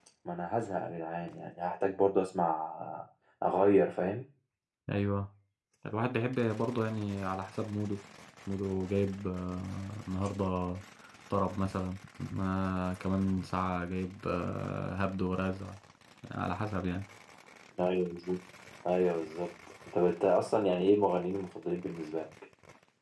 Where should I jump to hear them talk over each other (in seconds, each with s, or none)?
none